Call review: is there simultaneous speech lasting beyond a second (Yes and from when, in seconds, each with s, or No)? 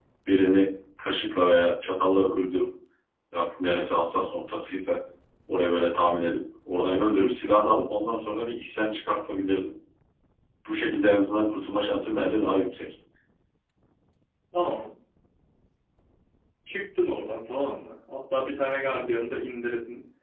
No